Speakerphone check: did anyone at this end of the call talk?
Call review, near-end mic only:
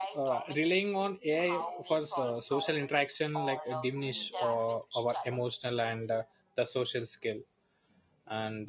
Yes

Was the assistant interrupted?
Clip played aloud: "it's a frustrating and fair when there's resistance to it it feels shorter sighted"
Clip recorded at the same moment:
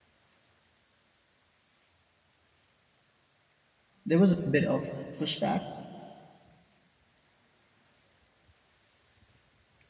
Yes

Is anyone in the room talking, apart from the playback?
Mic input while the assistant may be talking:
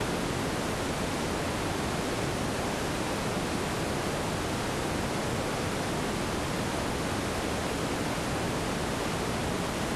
No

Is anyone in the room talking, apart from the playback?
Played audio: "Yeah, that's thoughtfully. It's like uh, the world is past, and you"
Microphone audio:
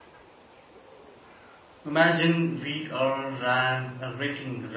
Yes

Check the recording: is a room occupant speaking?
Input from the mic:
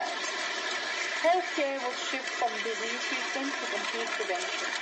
No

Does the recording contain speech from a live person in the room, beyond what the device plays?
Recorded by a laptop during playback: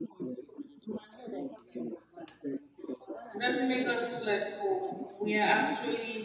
Yes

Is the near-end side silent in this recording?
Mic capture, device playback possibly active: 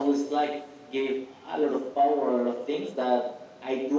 Yes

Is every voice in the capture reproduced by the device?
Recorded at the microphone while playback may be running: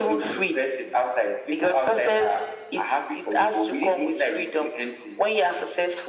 Yes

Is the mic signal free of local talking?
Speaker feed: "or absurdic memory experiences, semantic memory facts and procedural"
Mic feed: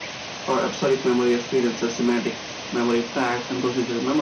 Yes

